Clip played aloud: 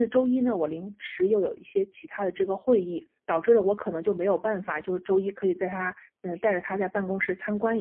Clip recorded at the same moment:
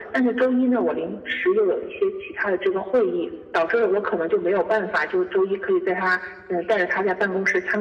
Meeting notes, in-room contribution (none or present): none